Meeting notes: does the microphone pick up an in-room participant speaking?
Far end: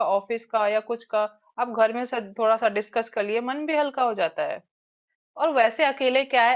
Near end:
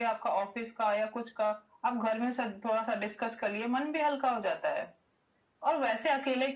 No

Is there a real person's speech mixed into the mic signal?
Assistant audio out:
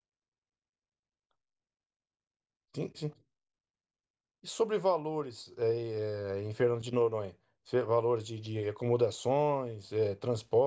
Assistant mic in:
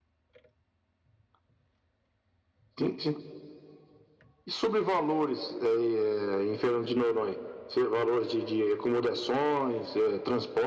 No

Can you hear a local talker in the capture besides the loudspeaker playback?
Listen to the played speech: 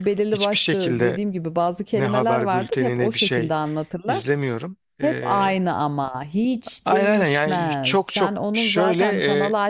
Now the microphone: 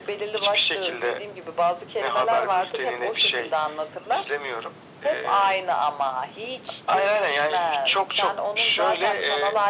No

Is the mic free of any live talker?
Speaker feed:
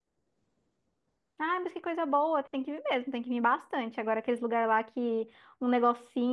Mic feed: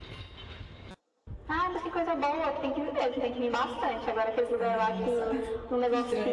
No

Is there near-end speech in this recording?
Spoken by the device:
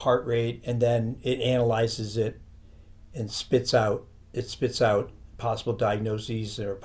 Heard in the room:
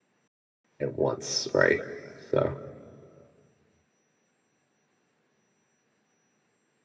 Yes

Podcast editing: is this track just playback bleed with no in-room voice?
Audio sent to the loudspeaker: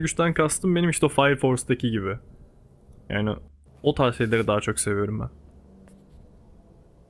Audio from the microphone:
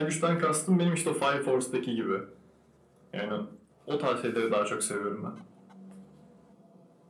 Yes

